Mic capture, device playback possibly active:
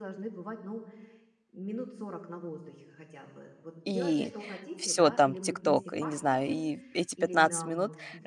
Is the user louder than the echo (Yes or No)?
Yes